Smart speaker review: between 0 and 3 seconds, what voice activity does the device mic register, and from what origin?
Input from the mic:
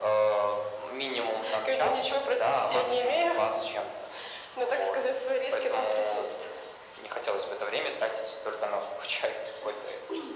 echo only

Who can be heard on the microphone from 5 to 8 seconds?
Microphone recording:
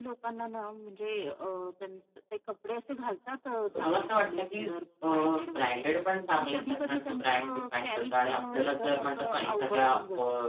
both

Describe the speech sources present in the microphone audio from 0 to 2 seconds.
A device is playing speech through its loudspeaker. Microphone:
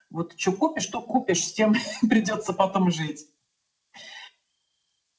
echo only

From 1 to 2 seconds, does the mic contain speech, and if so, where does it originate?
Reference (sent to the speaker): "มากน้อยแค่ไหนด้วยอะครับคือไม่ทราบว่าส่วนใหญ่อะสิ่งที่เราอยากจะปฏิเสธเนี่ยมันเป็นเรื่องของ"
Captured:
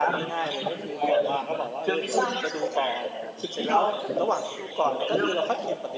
both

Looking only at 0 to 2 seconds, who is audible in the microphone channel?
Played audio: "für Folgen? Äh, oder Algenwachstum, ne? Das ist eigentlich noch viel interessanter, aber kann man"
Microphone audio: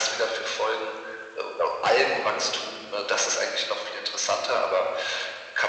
echo only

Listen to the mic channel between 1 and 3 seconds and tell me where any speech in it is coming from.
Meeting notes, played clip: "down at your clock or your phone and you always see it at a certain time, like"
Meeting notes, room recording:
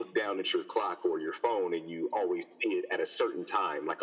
echo only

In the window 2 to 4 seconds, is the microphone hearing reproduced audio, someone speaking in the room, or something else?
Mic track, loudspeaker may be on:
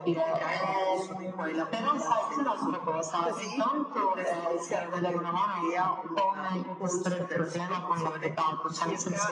echo only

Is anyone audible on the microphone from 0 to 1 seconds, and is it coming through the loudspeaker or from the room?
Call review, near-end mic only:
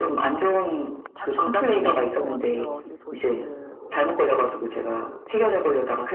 echo only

